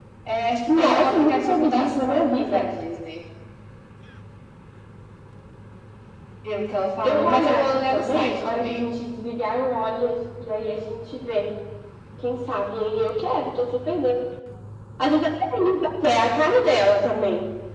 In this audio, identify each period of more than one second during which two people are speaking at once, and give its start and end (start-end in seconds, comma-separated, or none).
0.7-2.7, 7.0-8.8